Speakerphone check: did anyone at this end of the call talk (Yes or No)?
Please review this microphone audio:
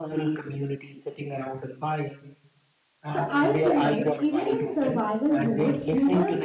Yes